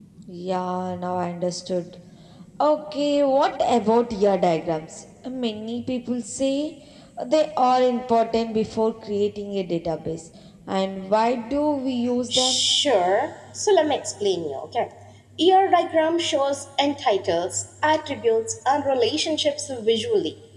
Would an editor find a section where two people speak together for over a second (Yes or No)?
No